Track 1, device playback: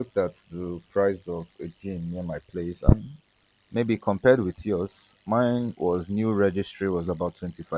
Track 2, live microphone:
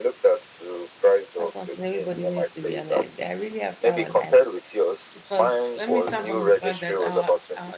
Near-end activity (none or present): present